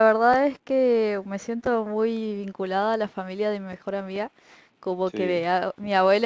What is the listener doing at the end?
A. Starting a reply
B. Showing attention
B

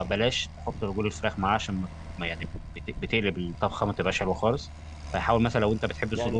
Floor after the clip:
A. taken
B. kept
A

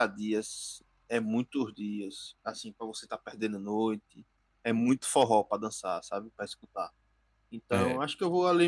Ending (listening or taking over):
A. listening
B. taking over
A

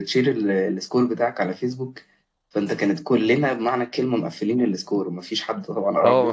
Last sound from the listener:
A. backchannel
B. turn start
B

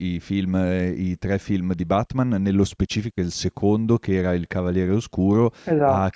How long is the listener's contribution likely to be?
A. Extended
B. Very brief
B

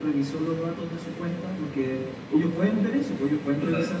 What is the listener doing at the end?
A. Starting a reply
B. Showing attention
B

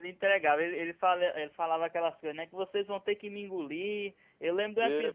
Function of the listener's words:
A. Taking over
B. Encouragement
B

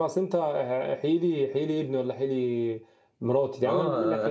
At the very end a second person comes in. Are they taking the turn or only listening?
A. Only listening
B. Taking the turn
B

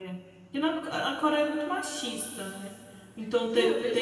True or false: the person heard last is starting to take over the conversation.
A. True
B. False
A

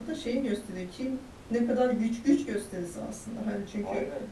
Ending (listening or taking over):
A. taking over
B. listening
B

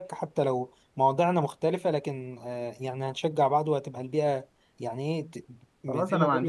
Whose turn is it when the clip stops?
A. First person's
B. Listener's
B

